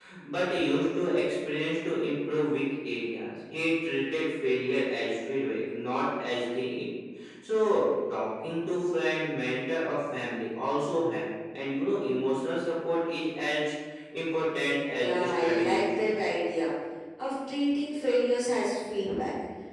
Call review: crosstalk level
present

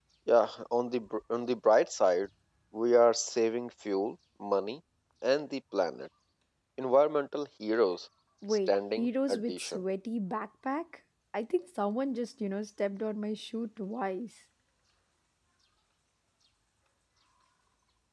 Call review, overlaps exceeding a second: present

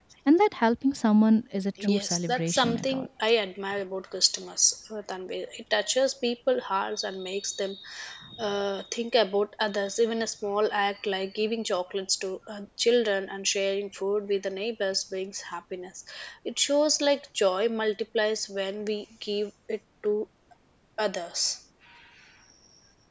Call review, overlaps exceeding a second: present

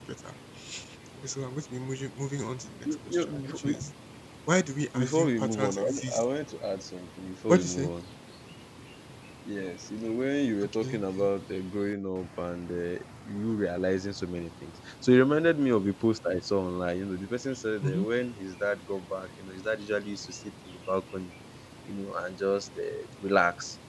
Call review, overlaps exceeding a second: present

